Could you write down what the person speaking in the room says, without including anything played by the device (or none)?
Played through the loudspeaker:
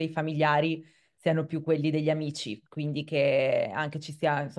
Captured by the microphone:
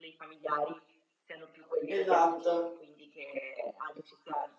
Esatto,